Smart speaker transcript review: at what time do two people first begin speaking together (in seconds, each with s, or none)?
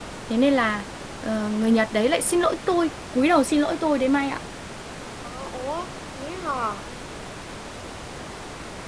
none